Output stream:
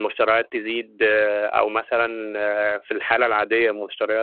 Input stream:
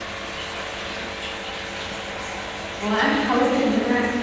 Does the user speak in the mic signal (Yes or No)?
Yes